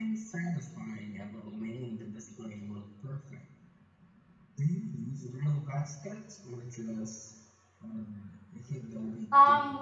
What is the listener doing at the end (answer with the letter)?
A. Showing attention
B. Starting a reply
B